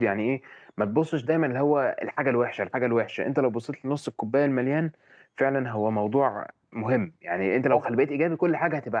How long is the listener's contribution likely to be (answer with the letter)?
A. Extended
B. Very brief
B